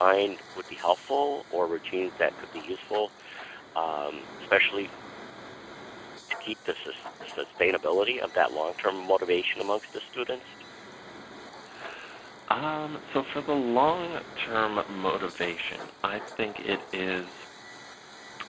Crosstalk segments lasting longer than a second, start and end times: none

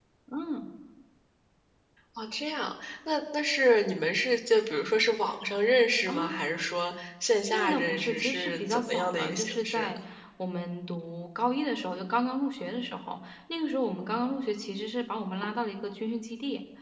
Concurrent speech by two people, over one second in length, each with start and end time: 7.5-10.0

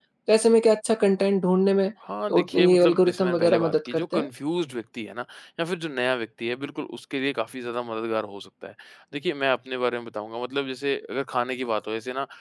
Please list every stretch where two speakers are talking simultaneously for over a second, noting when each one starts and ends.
2.3-4.3

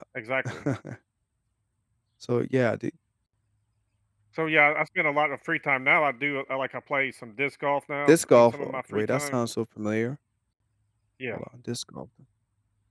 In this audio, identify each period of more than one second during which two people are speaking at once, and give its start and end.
8.1-9.4

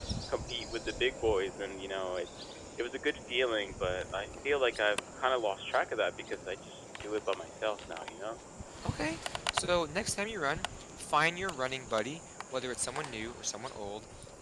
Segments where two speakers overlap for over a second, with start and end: none

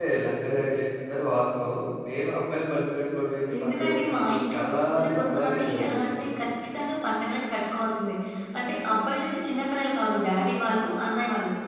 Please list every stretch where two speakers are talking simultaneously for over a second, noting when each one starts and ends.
3.6-6.2

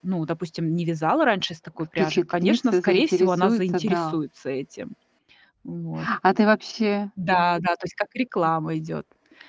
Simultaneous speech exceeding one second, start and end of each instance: 2.0-4.2

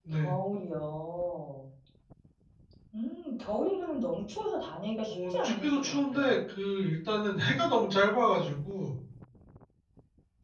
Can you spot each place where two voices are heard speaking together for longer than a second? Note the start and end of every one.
5.1-6.3

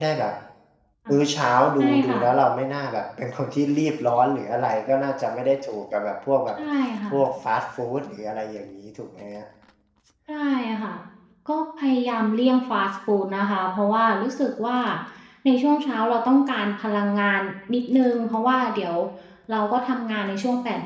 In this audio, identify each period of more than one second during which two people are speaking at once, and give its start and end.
none

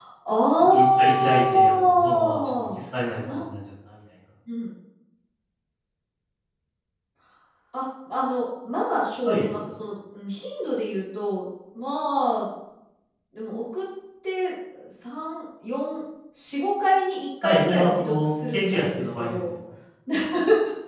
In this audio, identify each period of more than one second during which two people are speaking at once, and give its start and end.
0.7-2.8, 17.4-19.4

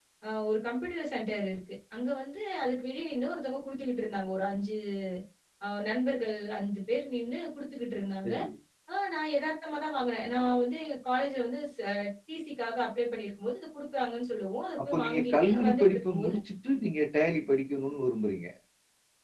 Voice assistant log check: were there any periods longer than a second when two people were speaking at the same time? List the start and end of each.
14.8-16.3

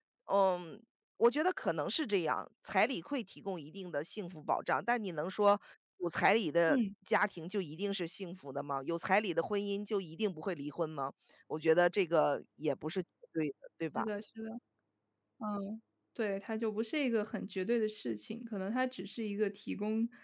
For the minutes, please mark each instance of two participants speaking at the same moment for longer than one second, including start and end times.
none

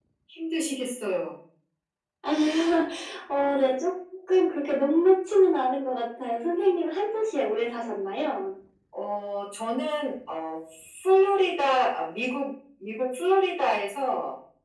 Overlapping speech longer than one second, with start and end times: none

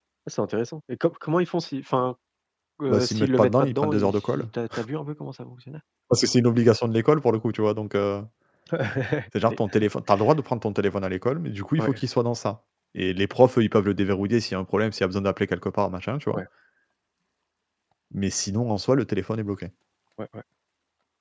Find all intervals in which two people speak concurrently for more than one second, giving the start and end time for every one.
2.9-4.5

